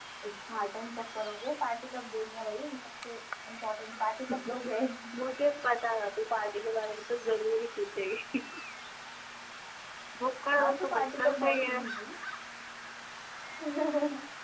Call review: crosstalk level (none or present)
present